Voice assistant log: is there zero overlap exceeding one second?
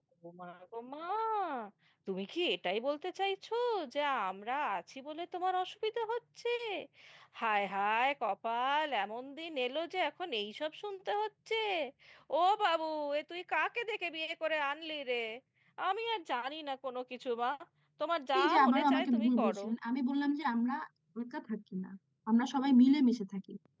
No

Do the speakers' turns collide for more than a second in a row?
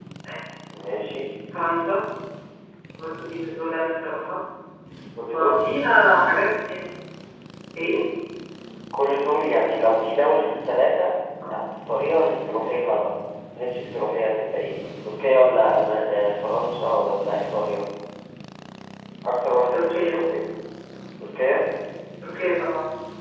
No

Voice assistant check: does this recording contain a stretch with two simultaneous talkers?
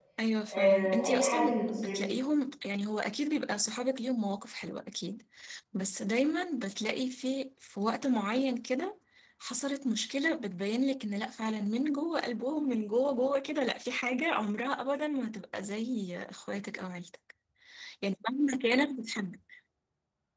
Yes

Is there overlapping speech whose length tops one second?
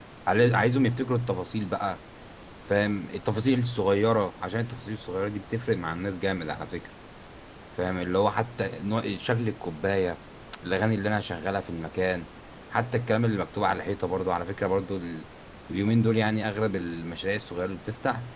No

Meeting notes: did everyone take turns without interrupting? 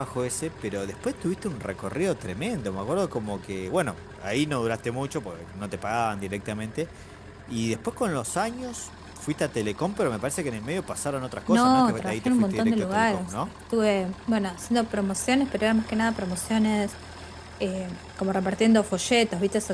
No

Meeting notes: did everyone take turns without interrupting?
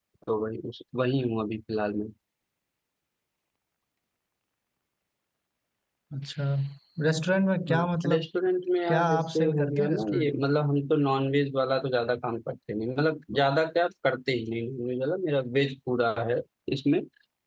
No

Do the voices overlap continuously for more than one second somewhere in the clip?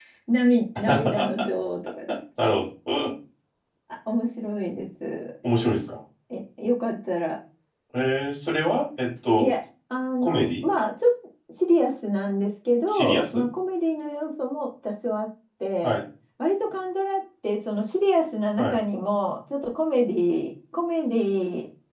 No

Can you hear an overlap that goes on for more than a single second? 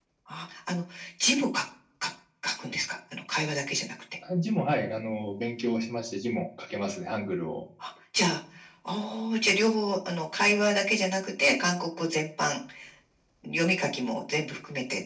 No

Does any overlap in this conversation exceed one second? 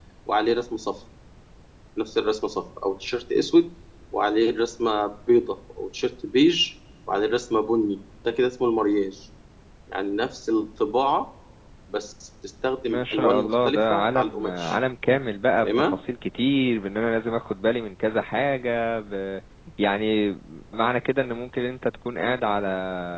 Yes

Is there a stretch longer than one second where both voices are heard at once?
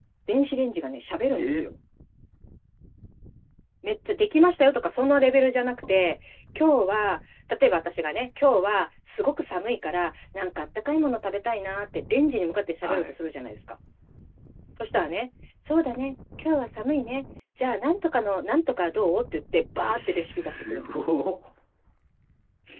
No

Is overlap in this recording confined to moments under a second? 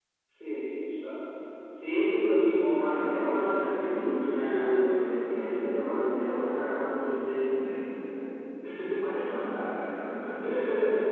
No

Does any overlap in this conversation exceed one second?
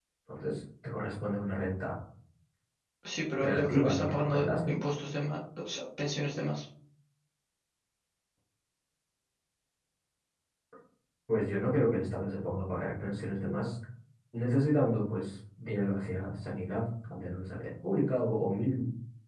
Yes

